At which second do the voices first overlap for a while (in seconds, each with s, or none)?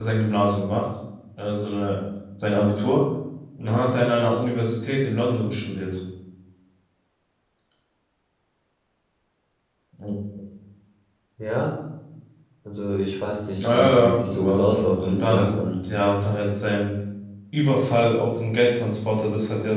13.6 s